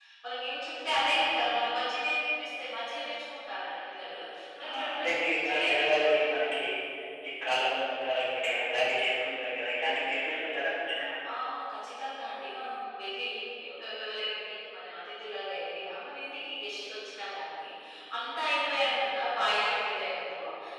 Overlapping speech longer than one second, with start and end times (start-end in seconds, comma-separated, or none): 4.7-6.6